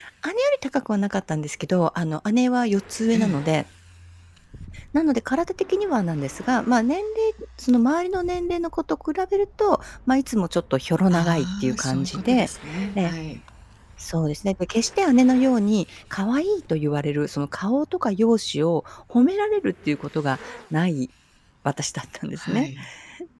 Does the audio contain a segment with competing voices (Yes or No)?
Yes